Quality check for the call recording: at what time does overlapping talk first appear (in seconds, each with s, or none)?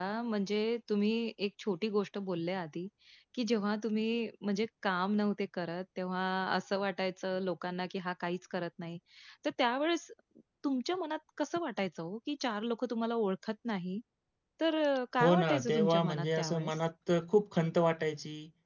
15.2 s